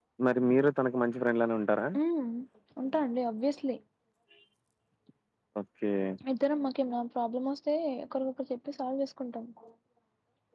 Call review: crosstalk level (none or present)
none